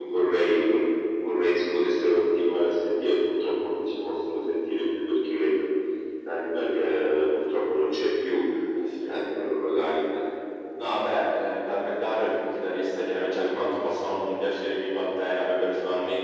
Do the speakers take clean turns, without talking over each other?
Yes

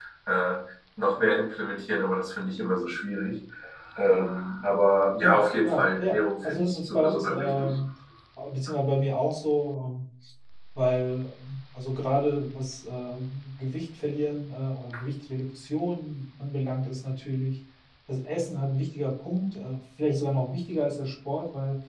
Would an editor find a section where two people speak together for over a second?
Yes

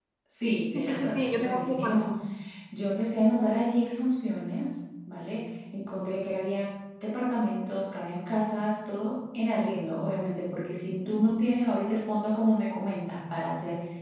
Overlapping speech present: Yes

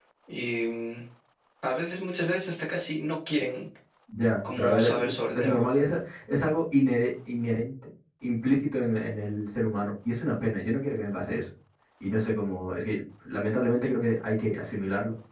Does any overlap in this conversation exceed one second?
Yes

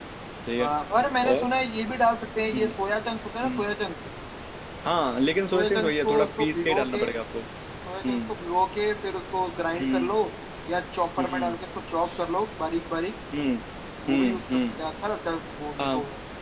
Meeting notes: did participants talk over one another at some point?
Yes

